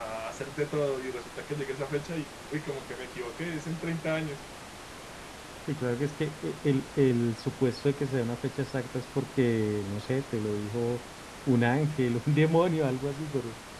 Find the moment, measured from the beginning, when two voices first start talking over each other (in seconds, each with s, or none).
none